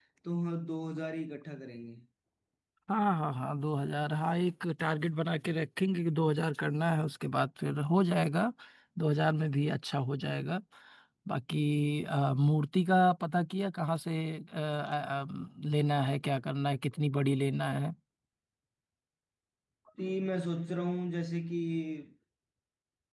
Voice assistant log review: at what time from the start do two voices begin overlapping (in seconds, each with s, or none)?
none